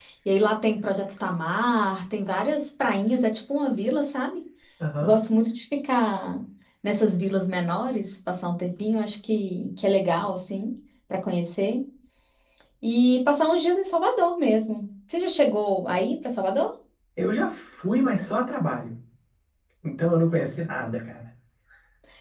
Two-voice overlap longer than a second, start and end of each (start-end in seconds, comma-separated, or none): none